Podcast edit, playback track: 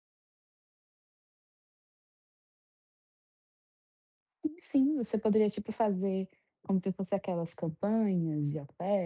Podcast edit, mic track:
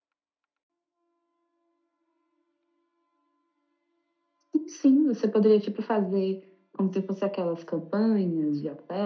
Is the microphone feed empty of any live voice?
Yes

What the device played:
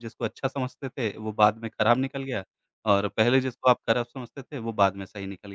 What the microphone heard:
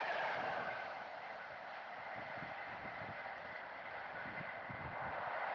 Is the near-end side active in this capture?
No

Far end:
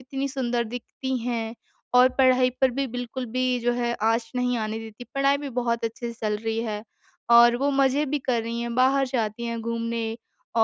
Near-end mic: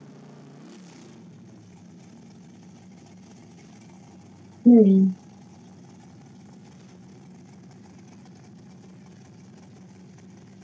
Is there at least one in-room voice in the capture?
Yes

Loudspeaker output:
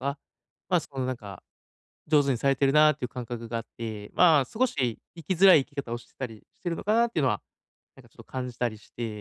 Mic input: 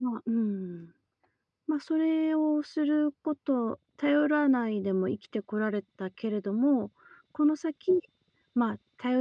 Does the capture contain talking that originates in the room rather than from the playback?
Yes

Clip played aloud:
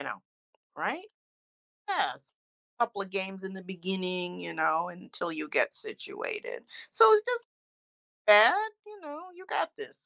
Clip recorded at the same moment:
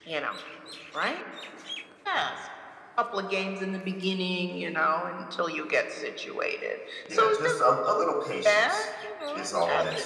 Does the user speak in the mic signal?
Yes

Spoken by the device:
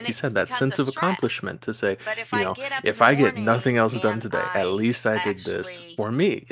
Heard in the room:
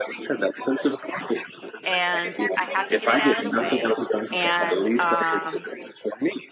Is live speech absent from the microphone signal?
No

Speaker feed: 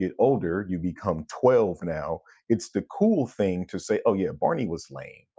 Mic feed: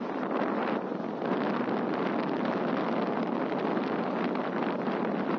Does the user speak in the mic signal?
No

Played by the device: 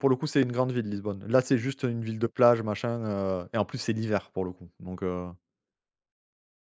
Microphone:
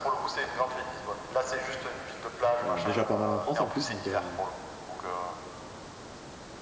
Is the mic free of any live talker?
No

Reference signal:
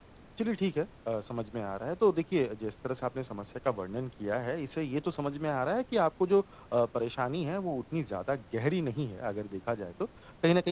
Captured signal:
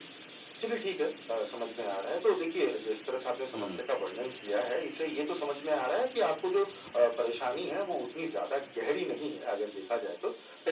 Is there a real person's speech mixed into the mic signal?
Yes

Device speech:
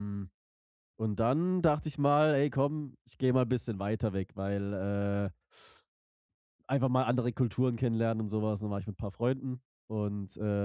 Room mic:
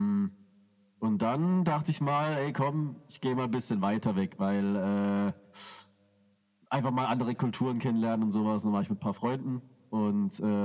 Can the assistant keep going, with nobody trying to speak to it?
Yes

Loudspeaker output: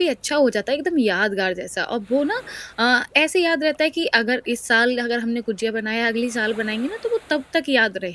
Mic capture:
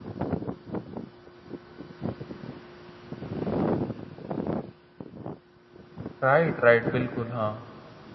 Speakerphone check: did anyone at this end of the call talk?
Yes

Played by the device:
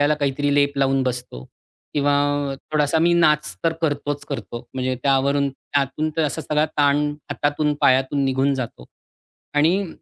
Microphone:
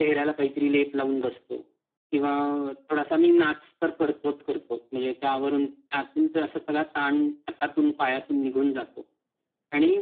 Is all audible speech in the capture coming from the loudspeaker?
Yes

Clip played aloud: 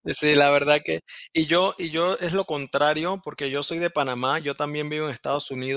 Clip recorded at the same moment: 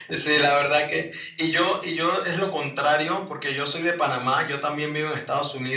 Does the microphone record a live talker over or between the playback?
No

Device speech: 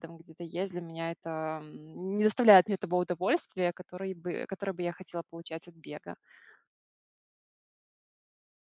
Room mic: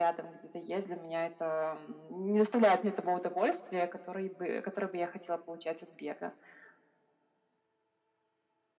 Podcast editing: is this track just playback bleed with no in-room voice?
Yes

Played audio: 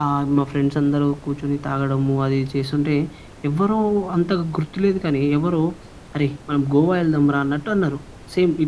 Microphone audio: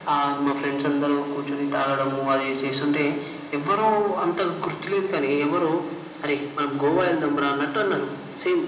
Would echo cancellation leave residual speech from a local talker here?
No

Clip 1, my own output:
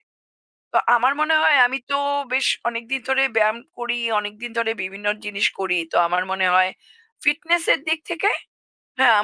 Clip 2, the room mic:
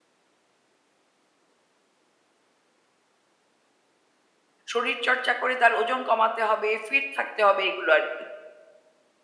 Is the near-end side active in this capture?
Yes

